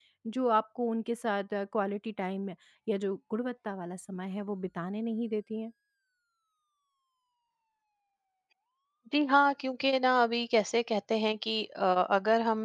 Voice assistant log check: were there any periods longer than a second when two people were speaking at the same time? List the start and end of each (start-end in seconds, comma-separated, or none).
none